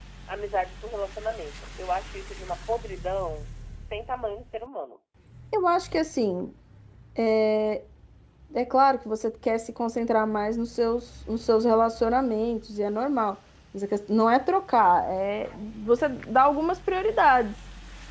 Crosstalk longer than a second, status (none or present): none